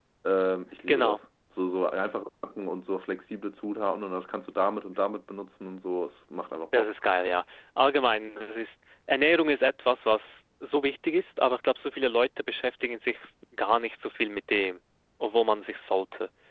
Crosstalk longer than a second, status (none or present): none